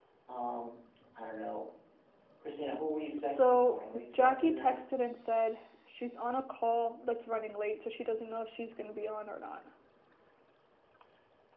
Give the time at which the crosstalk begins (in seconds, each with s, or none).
3.3 s